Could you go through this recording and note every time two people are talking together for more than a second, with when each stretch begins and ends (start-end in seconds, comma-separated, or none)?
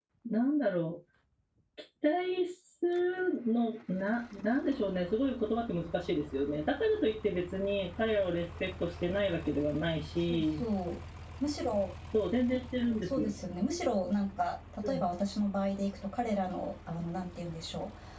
none